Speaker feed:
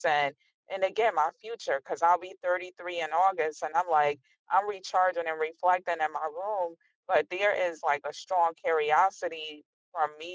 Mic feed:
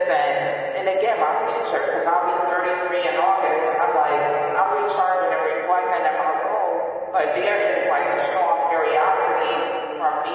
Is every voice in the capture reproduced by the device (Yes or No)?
Yes